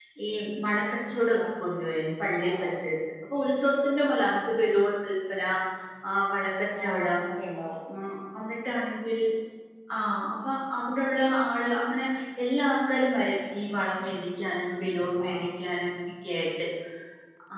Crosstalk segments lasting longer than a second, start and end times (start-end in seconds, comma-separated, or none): none